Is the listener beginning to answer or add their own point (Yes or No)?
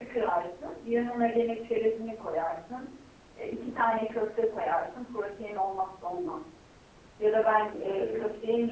No